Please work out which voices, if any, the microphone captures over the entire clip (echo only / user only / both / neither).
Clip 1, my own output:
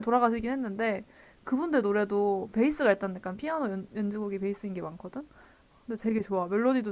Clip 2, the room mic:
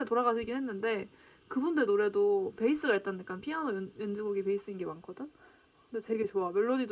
echo only